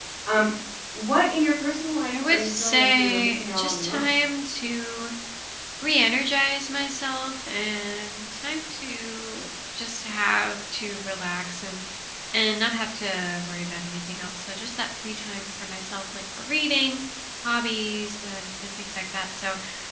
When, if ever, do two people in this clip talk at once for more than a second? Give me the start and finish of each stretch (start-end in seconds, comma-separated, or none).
2.1-4.2